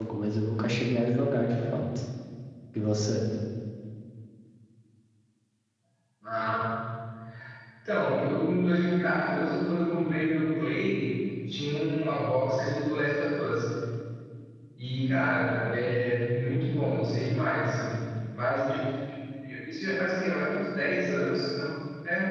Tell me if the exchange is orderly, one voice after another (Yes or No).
Yes